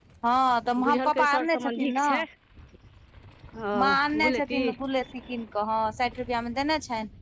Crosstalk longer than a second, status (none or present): present